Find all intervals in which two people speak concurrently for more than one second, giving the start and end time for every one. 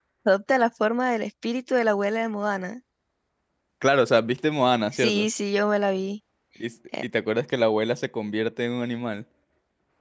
none

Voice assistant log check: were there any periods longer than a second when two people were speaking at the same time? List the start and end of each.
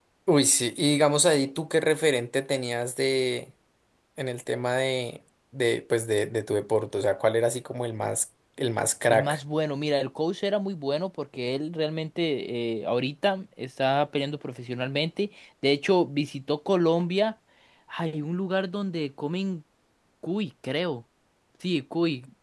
none

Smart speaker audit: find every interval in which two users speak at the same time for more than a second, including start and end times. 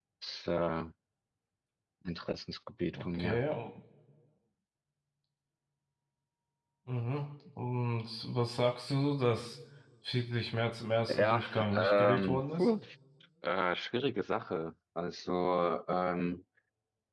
11.1-12.7

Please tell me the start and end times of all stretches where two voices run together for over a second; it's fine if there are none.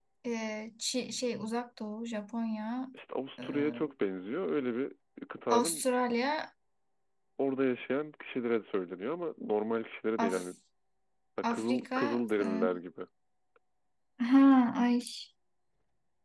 11.4-12.7

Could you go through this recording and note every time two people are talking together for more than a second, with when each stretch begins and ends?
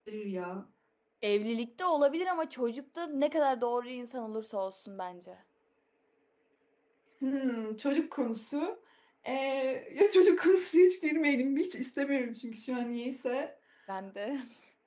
none

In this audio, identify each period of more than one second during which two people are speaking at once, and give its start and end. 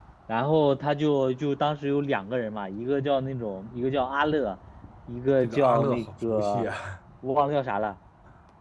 5.4-6.7

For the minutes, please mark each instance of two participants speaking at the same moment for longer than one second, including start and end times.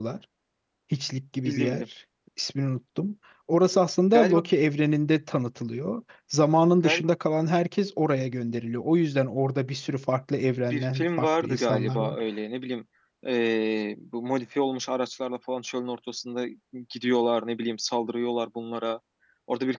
10.7-12.2

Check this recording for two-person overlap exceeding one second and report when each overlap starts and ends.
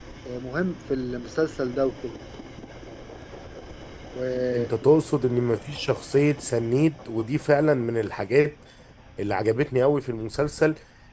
none

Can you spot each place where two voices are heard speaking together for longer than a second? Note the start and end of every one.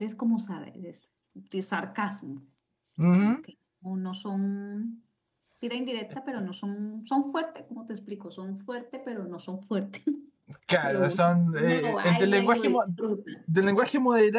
10.8-12.8

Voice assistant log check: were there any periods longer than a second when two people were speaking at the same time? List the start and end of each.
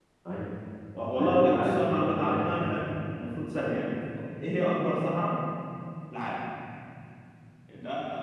1.1-2.7

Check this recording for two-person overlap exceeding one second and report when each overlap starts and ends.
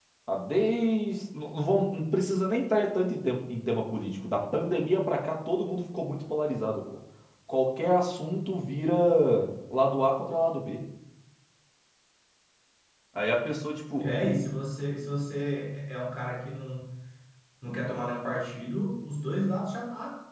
none

